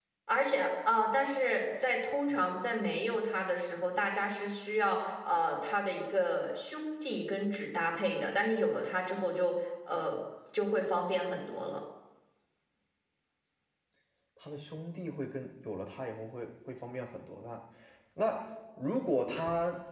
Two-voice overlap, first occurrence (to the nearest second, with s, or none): none